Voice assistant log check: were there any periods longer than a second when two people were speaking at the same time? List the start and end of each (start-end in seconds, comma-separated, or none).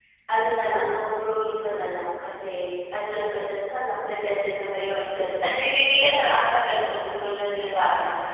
none